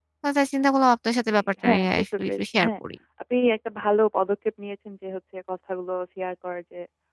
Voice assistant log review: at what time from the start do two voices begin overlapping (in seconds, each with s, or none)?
1.3 s